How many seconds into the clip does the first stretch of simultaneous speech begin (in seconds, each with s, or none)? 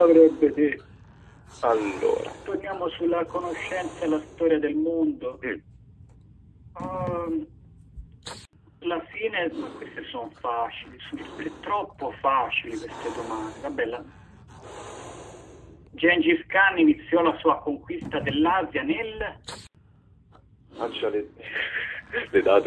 none